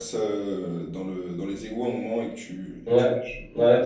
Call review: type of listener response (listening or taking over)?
taking over